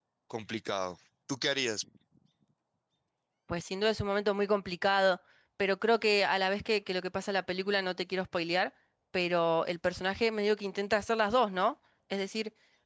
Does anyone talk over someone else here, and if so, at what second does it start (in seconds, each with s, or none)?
none